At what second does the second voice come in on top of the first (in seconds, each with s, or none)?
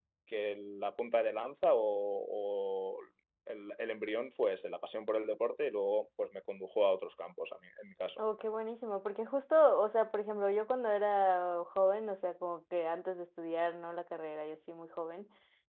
none